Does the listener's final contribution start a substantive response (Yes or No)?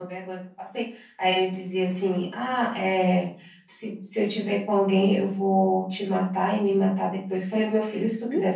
No